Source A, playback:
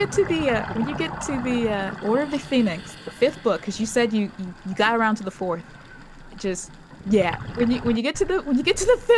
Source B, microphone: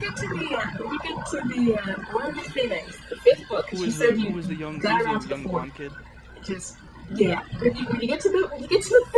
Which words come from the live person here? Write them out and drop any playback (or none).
who was the who was the young who was the young blonde kid?